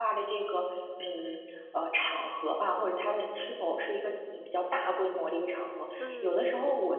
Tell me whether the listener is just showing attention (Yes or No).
Yes